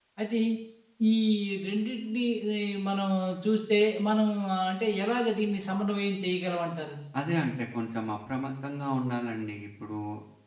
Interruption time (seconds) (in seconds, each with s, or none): none